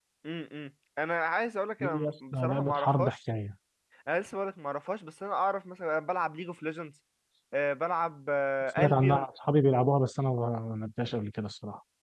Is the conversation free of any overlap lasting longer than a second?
No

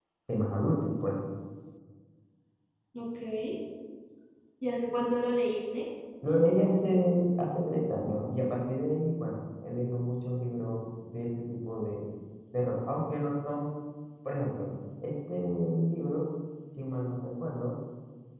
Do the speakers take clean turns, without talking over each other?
Yes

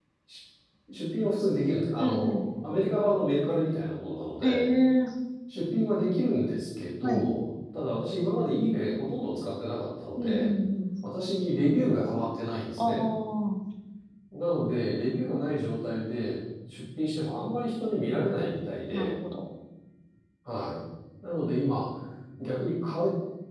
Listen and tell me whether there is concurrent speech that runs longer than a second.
No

